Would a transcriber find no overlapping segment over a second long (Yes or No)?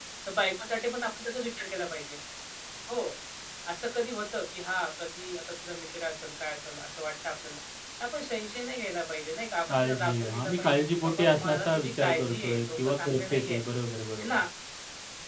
No